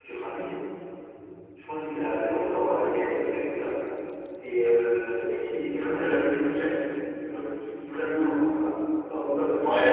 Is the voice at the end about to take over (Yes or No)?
Yes